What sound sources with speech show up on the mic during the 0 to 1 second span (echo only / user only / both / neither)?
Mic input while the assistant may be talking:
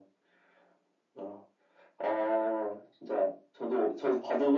neither